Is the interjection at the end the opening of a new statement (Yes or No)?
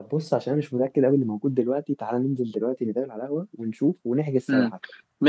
Yes